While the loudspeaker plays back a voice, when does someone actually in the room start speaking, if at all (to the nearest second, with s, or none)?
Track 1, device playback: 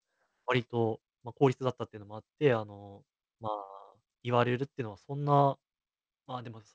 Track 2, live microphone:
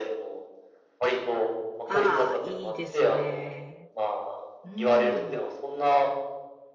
2 s